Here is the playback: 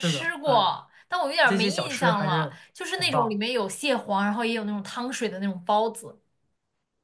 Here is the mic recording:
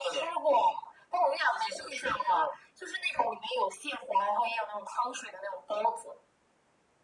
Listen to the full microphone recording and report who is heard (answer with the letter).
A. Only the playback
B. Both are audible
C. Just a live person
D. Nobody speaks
A